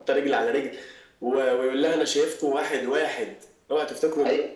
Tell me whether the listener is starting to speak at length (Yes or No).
Yes